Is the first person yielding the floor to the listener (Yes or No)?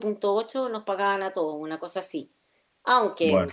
No